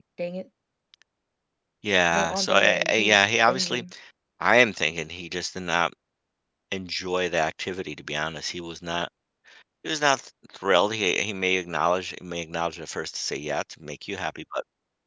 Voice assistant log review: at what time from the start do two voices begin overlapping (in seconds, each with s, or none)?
2.1 s